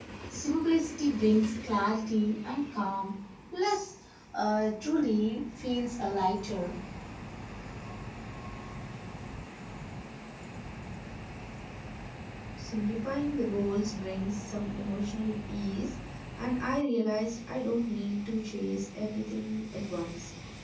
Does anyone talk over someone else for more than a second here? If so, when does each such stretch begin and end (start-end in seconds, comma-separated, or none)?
none